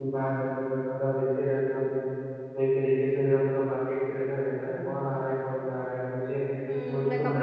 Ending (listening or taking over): taking over